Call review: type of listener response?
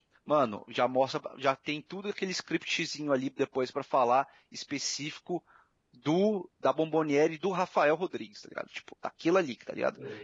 listening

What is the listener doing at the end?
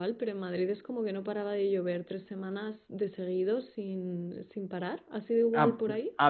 taking over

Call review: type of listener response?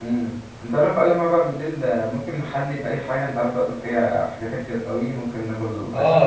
taking over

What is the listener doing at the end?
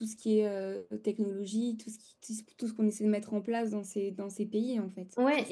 taking over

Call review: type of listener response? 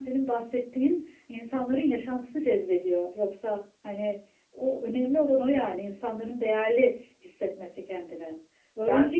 listening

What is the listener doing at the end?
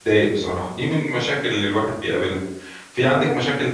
listening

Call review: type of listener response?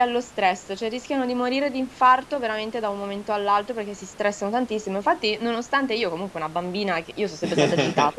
listening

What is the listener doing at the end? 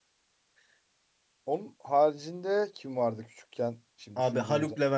taking over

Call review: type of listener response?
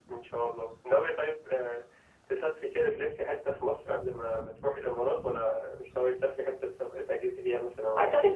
taking over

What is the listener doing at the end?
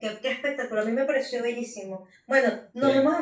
listening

